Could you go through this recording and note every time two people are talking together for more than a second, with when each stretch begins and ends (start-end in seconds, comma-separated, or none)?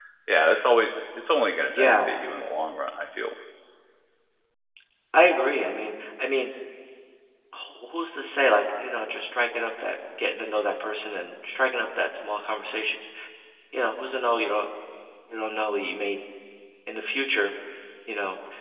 none